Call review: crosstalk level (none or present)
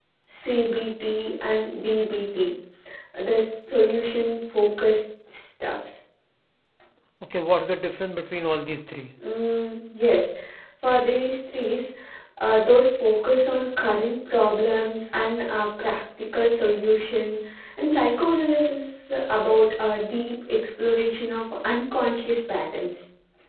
none